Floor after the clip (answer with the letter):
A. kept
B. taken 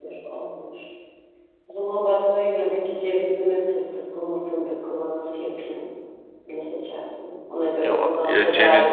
B